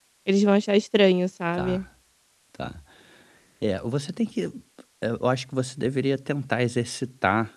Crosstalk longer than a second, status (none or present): none